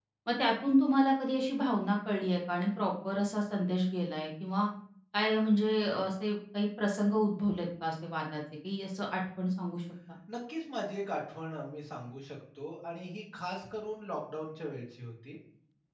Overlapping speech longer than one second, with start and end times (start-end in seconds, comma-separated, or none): none